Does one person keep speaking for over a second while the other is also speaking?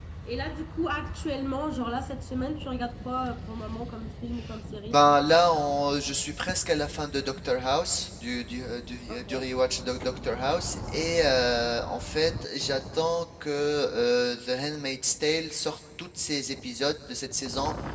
No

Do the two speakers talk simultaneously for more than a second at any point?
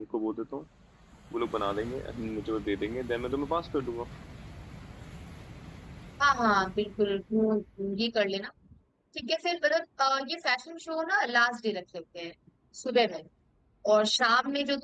No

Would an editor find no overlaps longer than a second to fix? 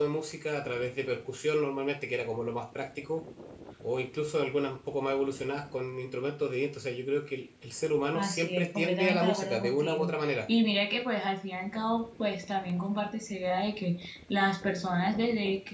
No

